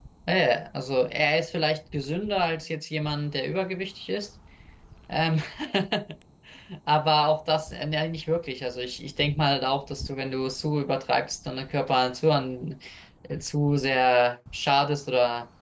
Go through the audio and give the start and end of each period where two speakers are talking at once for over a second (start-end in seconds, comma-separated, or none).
none